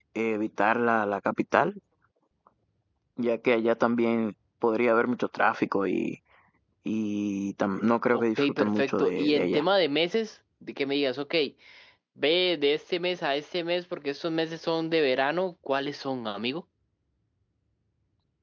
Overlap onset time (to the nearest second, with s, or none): 8 s